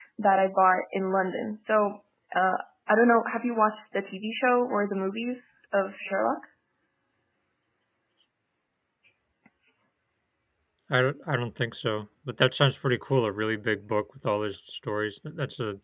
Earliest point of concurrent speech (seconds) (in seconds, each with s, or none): none